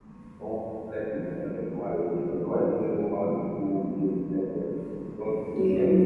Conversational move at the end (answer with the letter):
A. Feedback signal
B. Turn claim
A